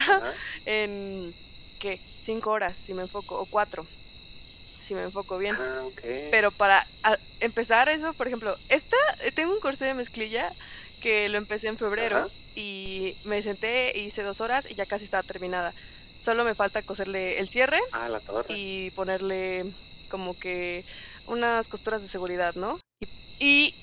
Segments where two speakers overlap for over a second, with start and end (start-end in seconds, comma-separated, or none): none